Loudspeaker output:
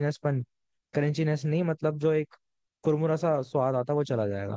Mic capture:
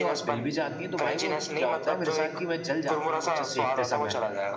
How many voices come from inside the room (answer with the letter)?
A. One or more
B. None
A